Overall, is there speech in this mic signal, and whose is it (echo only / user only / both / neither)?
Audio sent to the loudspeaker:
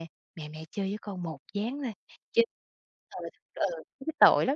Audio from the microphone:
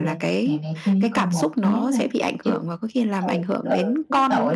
both